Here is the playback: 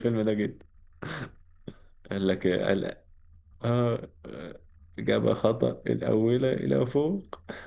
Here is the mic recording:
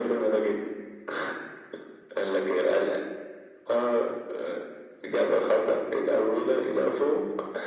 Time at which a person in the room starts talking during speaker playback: none

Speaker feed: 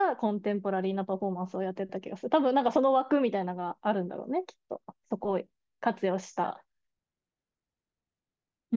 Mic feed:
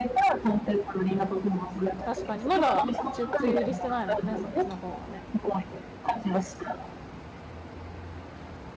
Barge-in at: 2.0 s

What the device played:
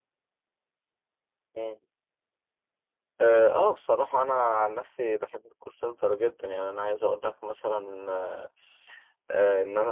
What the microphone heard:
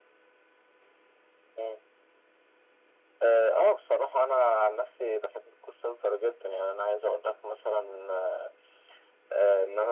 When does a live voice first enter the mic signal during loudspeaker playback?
none

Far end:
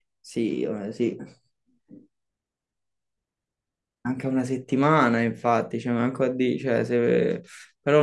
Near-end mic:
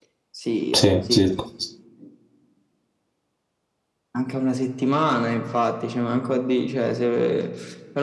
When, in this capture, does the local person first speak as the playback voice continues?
0.7 s

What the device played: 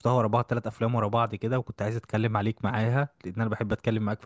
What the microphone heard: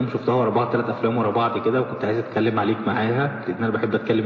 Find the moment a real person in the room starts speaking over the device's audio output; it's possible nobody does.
none

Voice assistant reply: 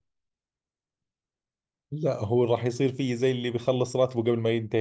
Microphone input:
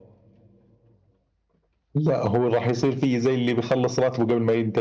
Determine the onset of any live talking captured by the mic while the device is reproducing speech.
none

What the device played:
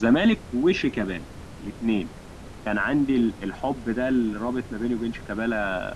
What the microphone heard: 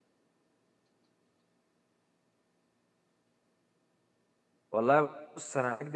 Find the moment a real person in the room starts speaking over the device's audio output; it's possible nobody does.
4.7 s

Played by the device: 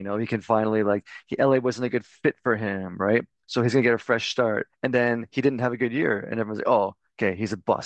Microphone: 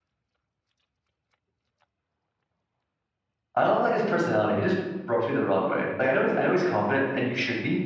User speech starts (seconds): 3.5 s

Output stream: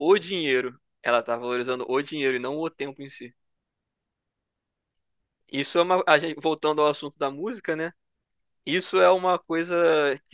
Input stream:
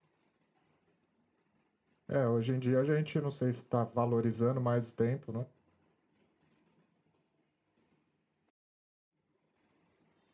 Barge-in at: 2.1 s

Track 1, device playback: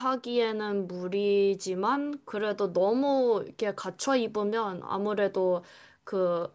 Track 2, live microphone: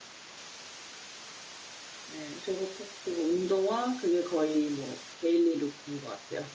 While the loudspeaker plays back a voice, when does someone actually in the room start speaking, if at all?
2.0 s

